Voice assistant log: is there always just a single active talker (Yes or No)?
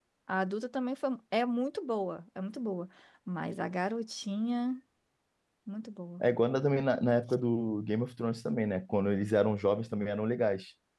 Yes